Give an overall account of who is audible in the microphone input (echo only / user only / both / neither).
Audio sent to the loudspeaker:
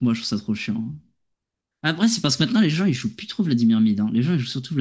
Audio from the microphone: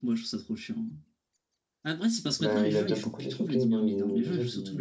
both